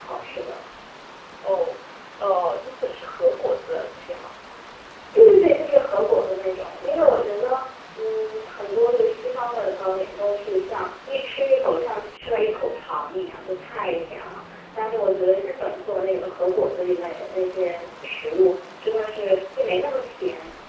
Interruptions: none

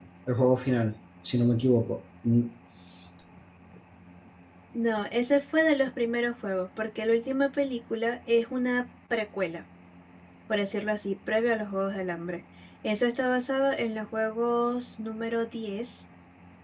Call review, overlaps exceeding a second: none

